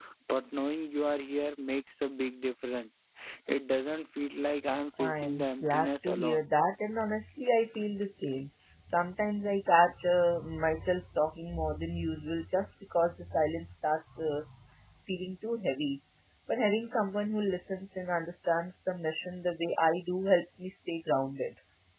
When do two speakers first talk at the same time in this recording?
5.0 s

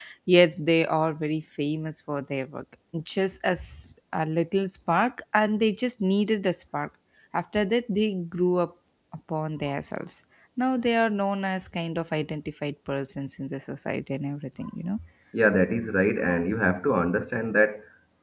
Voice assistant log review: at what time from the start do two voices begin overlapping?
none

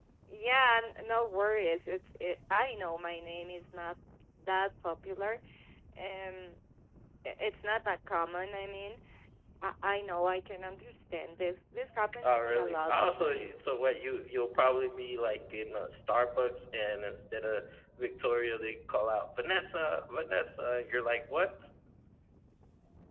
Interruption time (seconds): 12.2 s

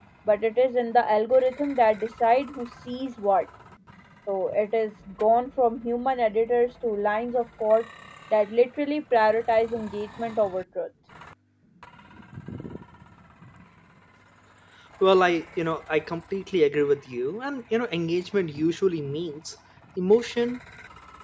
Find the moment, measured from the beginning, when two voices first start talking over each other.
none

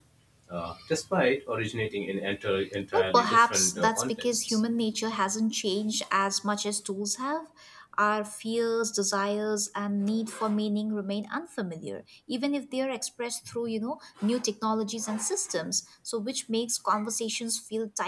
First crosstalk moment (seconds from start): 2.9 s

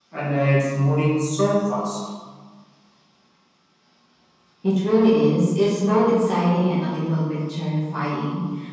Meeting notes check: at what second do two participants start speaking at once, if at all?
none

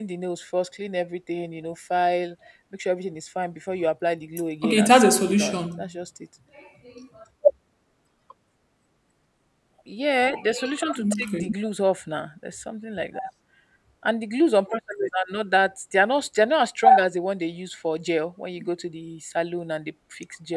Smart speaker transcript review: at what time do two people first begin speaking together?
4.6 s

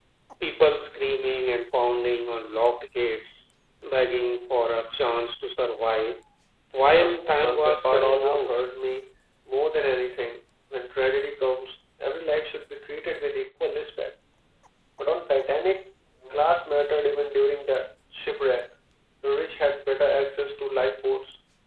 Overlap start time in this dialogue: 6.8 s

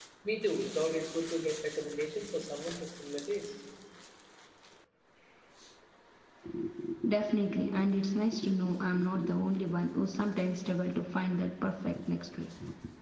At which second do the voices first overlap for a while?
none

